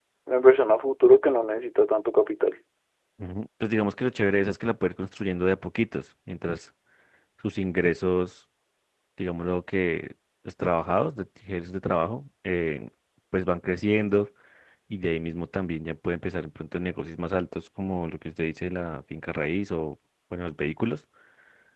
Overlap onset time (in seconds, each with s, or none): none